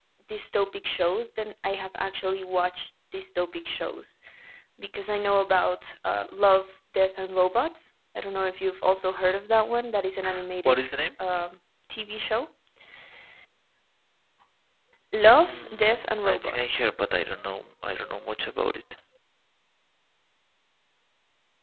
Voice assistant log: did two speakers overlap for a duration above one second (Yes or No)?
Yes